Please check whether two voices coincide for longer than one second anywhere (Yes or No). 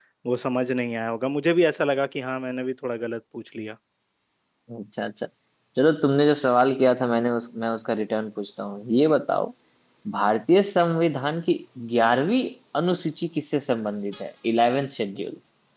No